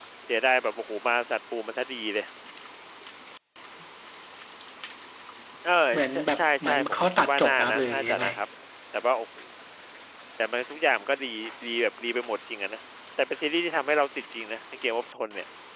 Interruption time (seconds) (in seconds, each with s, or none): 6.1 s